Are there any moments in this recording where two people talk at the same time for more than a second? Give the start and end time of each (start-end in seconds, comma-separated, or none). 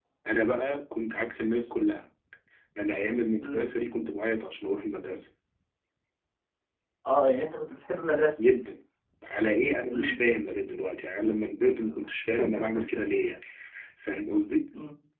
none